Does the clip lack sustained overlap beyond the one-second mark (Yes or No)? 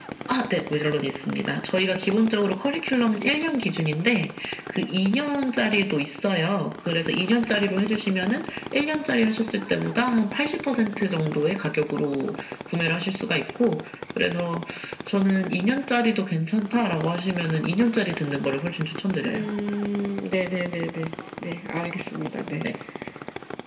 Yes